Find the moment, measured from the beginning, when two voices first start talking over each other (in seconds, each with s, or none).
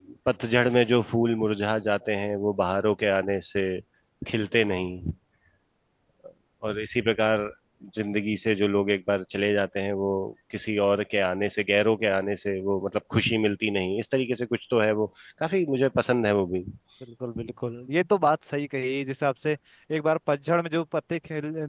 none